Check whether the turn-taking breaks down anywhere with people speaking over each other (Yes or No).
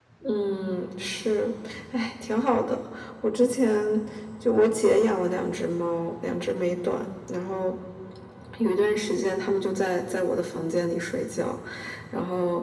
No